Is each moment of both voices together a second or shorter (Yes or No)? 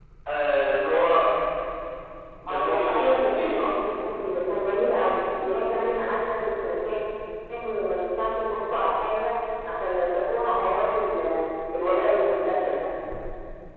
No